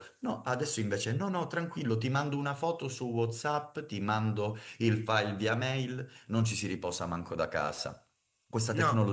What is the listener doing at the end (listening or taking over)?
listening